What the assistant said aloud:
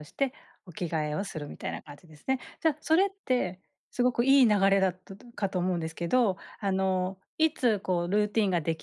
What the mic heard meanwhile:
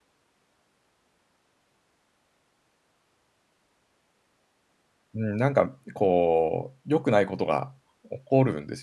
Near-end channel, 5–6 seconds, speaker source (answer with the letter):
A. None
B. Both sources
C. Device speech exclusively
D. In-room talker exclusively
D